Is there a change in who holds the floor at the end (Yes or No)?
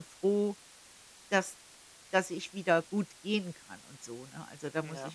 Yes